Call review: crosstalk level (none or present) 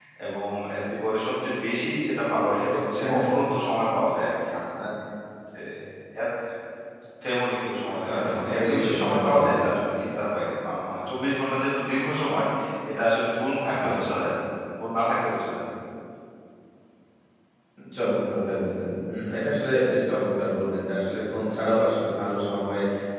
present